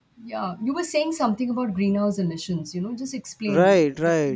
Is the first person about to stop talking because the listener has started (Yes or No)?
Yes